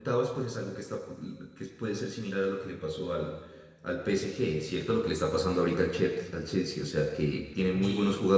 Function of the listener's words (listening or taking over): listening